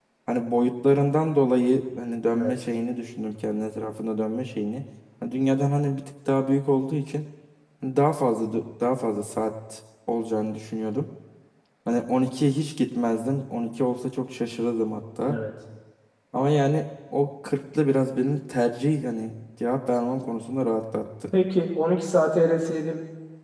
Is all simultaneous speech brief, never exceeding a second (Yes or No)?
Yes